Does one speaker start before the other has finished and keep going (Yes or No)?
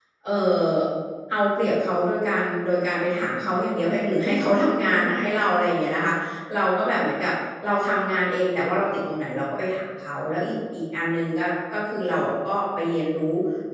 No